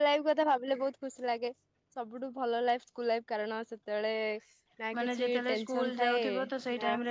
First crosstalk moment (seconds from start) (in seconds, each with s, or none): 5.0 s